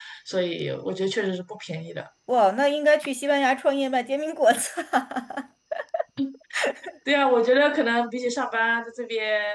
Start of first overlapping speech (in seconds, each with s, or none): none